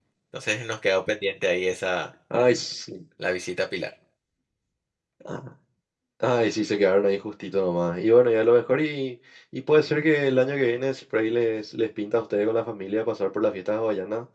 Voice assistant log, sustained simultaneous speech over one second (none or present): none